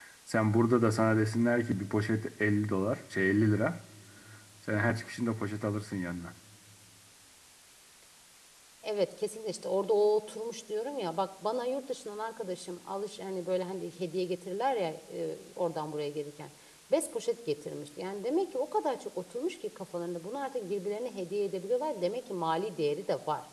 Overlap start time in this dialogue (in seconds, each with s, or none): none